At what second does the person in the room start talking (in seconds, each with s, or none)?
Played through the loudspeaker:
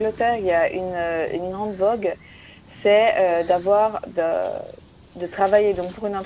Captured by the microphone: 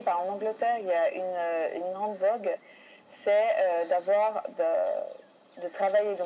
none